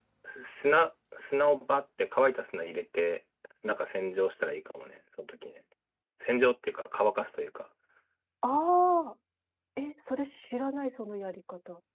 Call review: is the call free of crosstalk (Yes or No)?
Yes